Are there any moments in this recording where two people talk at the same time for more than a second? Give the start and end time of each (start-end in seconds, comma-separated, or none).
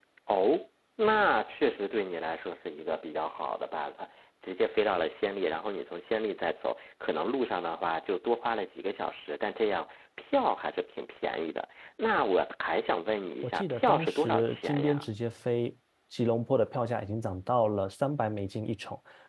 13.4-15.1